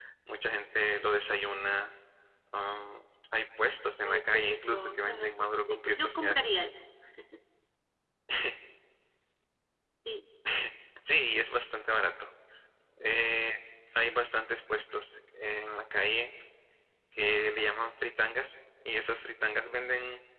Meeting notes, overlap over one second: present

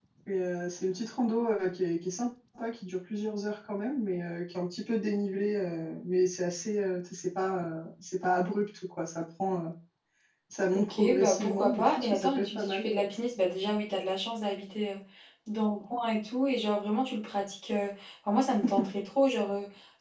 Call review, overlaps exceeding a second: present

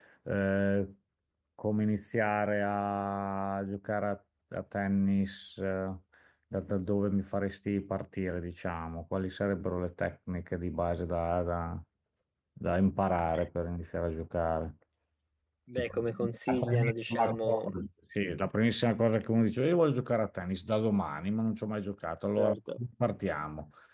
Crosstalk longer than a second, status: present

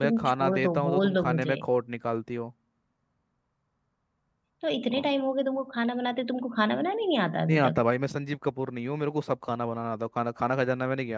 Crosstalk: present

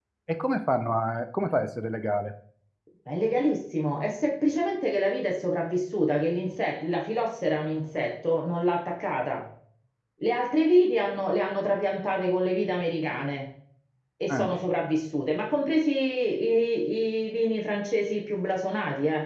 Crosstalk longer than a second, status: none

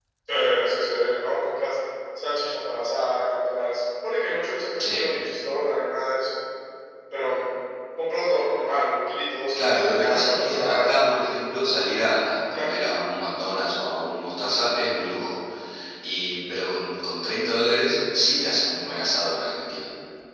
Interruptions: present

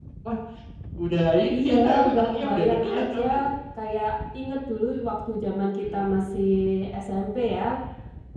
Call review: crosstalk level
present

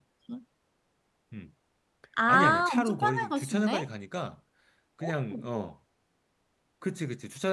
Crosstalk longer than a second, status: present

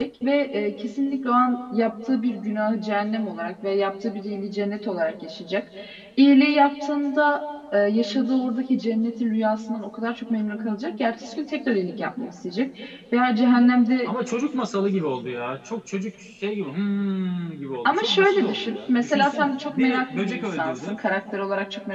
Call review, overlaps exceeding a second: present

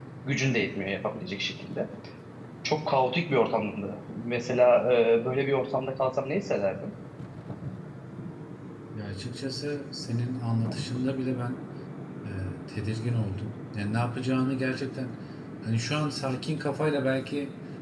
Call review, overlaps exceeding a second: none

